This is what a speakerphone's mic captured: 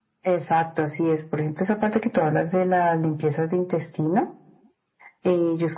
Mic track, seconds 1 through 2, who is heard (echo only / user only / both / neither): echo only